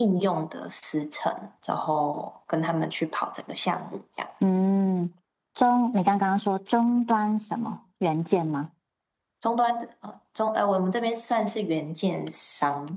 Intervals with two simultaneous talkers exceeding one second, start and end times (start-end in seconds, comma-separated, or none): none